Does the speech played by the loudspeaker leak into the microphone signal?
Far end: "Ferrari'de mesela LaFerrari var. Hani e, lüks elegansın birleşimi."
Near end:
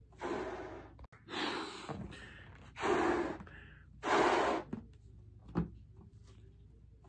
No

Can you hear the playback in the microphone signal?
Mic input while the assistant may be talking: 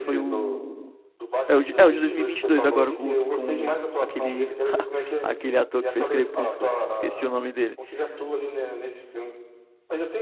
Yes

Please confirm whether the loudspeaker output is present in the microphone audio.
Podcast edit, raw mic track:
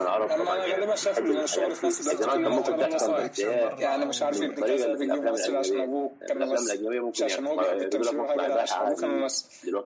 Yes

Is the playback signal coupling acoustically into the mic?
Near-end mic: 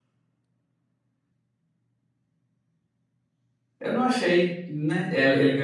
No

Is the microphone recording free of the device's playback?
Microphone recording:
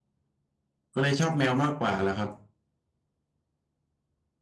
Yes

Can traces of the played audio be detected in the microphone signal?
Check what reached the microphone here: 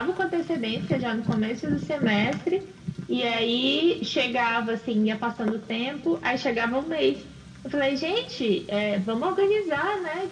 Yes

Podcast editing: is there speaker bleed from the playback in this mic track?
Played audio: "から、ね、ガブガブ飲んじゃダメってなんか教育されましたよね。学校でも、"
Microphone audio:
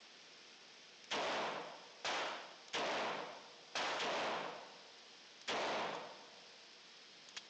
No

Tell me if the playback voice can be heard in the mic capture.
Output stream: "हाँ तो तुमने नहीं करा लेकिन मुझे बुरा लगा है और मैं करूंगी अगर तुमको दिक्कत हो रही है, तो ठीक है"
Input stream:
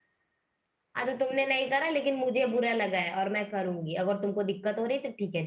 Yes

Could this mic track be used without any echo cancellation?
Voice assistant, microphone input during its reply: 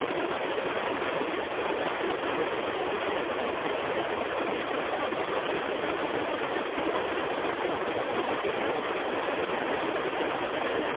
Yes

